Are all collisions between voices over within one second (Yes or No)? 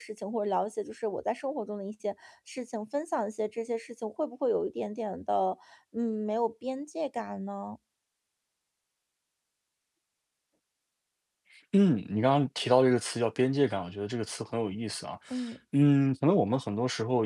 Yes